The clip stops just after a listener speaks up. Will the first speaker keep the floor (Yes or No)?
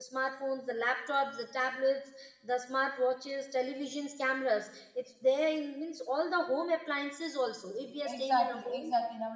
No